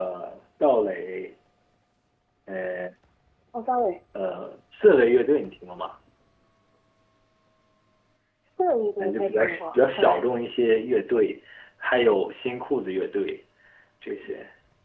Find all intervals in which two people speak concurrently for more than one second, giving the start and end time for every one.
9.0-10.2

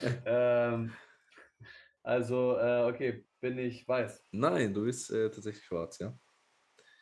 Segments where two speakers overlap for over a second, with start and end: none

